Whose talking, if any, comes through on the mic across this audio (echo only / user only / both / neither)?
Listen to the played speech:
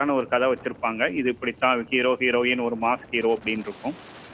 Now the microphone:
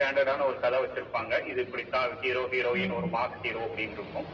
both